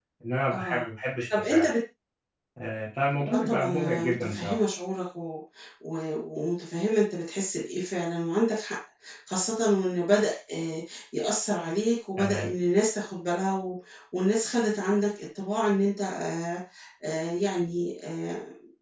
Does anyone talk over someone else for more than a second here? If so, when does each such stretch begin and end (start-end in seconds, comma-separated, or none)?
3.3-4.6